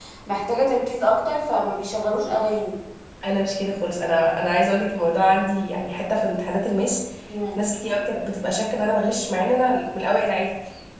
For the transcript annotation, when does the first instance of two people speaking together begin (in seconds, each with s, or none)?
none